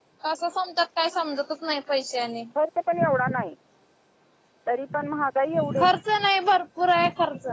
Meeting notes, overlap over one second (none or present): none